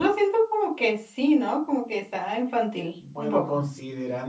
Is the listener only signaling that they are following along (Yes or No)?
No